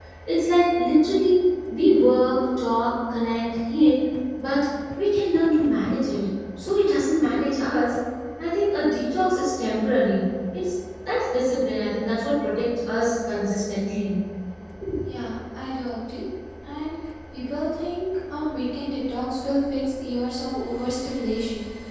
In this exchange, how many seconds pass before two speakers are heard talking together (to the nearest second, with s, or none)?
none